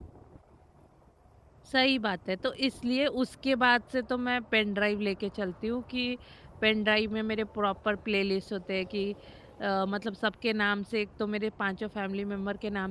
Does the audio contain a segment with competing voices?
No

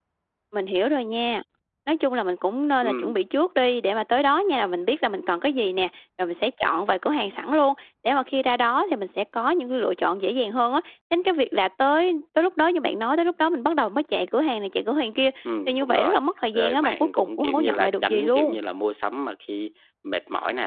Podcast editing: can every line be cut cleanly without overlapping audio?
No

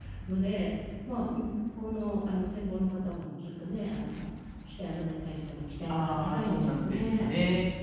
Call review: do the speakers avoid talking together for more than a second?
No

